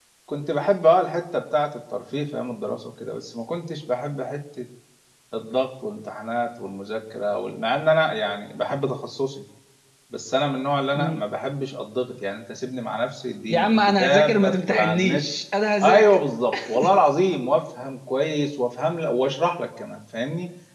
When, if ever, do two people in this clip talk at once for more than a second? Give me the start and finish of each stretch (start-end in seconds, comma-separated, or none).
13.5-15.2